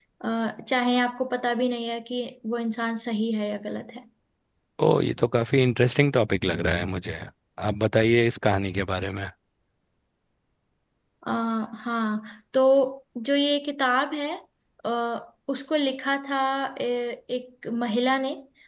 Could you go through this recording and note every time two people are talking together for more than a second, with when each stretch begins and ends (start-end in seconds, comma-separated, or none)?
none